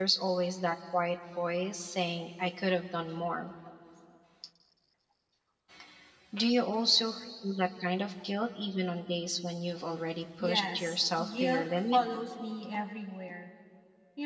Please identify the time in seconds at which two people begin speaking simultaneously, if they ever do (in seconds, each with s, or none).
10.4 s